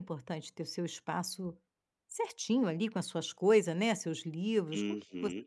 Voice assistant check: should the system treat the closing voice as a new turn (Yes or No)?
Yes